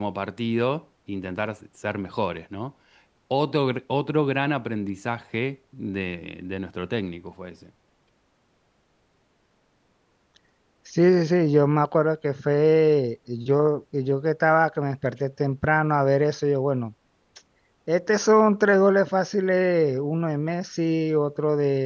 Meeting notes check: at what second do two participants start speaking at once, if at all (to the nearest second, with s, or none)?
none